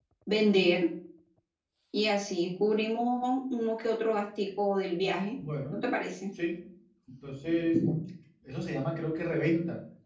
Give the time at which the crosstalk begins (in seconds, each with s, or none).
none